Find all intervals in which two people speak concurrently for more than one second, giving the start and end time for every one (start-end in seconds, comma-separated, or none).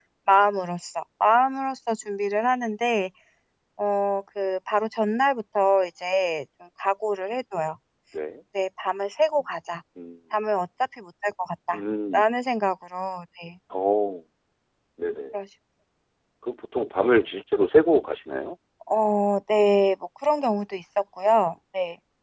none